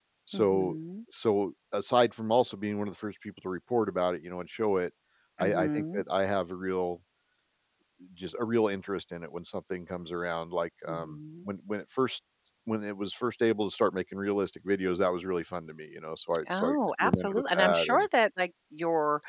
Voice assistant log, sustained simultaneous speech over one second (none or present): present